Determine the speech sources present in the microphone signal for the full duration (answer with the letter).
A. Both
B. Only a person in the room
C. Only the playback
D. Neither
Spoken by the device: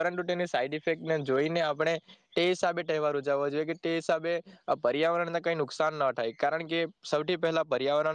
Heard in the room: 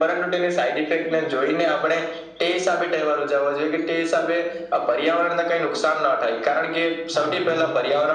A